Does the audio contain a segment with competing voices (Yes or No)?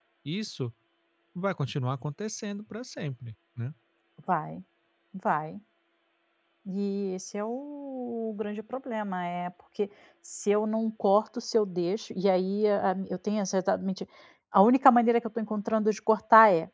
No